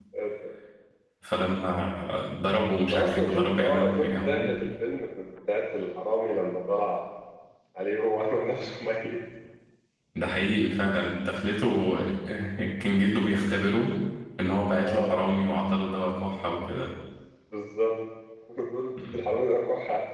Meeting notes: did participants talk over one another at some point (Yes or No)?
Yes